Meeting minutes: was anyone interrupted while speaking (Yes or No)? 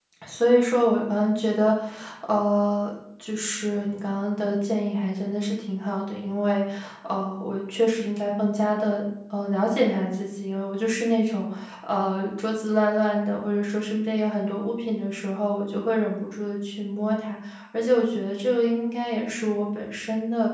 No